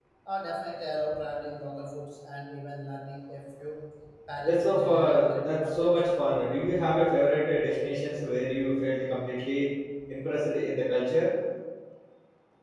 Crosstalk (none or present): present